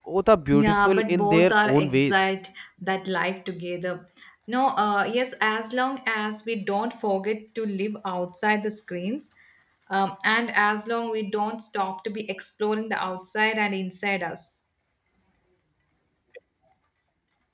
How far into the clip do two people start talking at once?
0.5 s

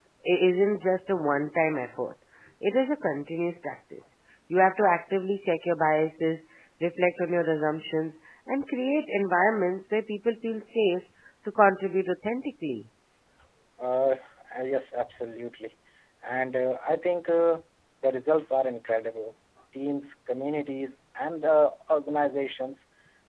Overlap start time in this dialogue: none

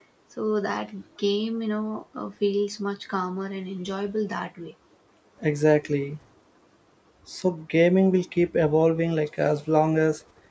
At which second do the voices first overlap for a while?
none

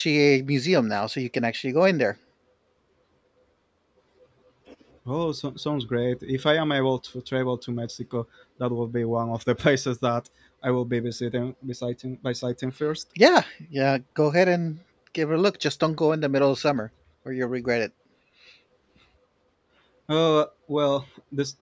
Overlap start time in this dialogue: none

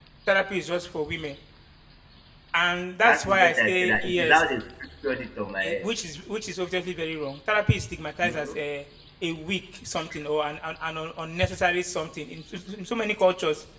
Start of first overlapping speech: 3.0 s

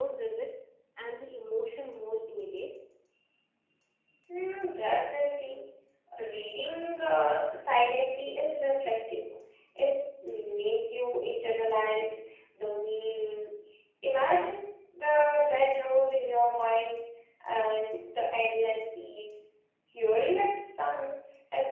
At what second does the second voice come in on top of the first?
none

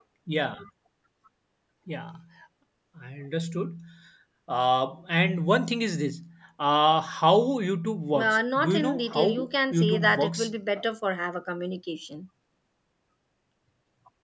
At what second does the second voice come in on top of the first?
8.1 s

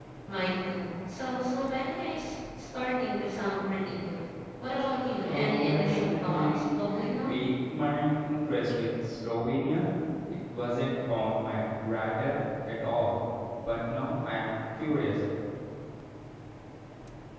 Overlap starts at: 5.2 s

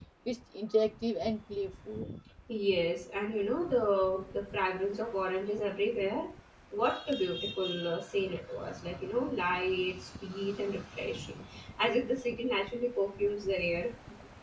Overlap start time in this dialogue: none

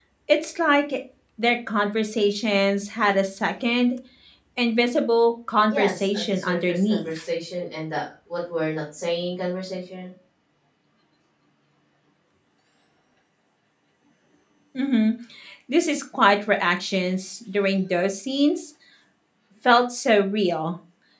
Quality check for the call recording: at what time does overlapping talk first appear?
5.7 s

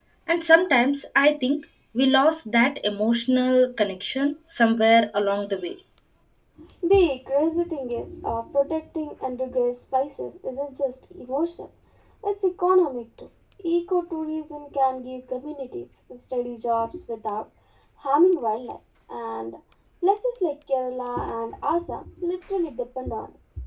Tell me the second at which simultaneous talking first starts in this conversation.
none

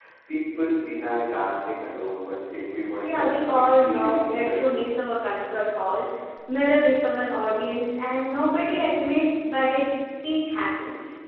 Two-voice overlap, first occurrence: 3.0 s

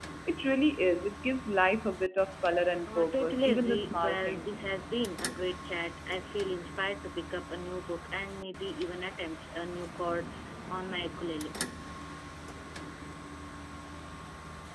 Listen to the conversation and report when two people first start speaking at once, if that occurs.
2.9 s

